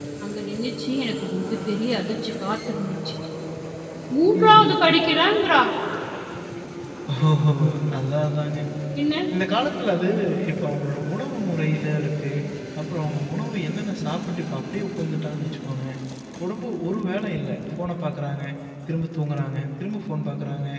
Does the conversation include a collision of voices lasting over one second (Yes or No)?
No